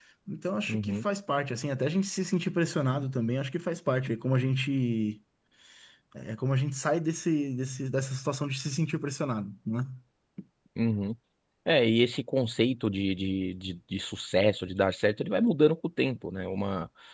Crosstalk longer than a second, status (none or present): none